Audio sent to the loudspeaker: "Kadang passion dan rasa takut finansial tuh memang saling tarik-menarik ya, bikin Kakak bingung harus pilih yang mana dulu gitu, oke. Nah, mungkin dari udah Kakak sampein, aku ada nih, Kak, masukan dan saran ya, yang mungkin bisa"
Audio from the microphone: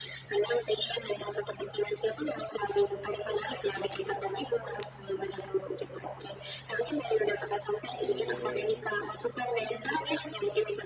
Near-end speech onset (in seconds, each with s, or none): 8.0 s